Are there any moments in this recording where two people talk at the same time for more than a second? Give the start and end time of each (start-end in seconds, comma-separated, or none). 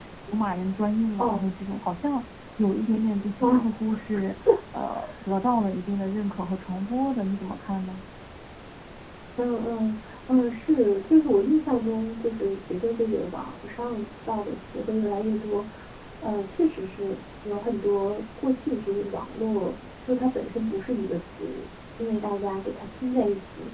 none